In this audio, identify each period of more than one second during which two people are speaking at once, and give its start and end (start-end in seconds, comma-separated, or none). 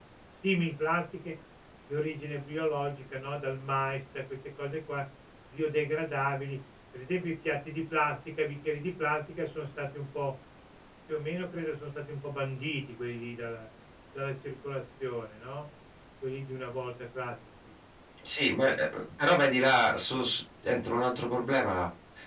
none